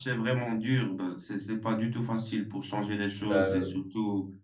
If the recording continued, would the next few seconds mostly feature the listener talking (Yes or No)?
No